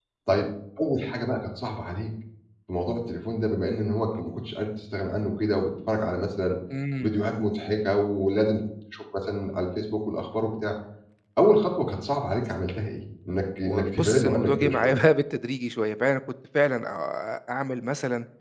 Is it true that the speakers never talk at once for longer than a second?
No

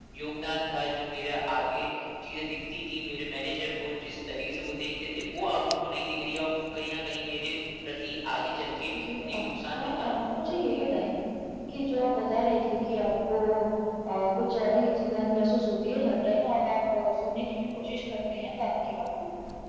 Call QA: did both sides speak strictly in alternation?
No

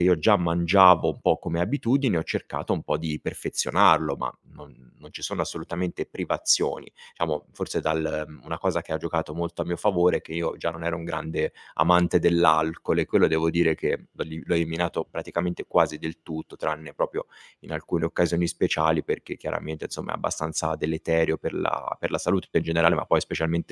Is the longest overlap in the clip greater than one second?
No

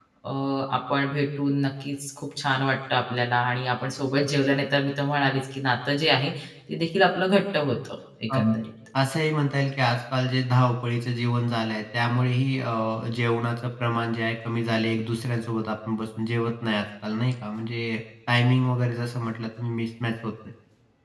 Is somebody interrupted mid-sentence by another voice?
No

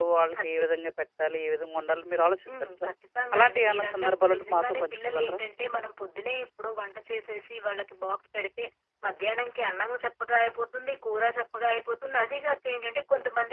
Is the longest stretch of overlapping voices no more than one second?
No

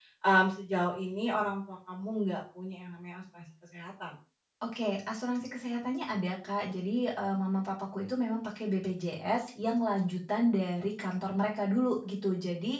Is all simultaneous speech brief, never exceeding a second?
Yes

